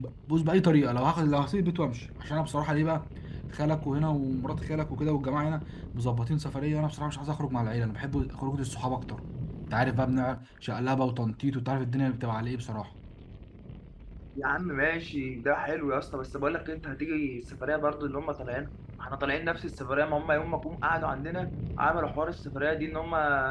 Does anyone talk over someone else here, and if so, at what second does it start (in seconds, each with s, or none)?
none